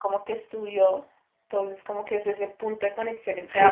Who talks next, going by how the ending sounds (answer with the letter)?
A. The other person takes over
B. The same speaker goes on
A